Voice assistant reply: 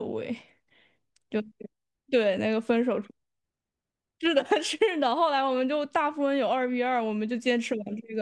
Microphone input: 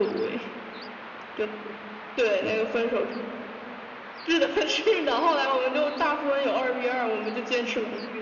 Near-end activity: none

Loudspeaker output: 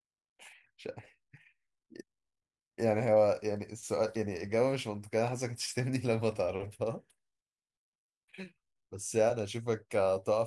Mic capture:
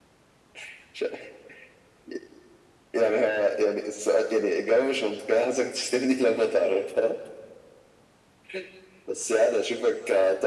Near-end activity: none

